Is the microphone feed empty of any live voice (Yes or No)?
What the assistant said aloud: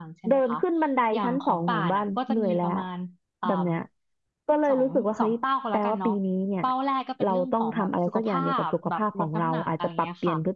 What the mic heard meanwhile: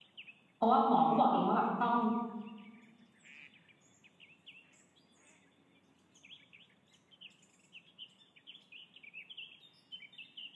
No